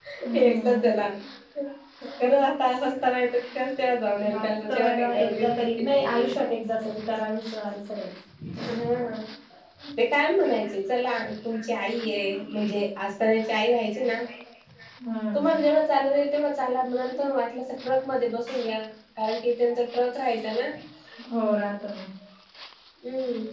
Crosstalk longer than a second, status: present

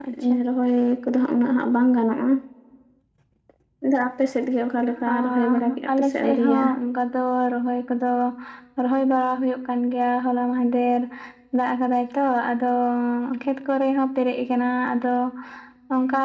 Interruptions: present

